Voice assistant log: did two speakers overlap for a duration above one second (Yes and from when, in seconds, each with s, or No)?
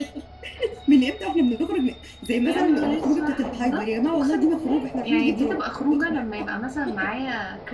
Yes, from 2.4 s